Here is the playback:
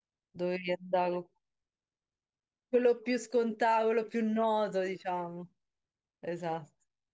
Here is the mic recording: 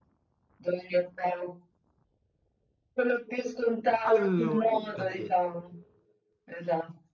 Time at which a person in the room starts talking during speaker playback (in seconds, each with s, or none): 4.0 s